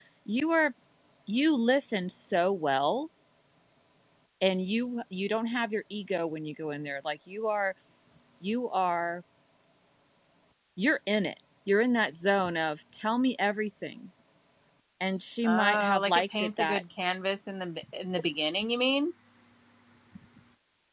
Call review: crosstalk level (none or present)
present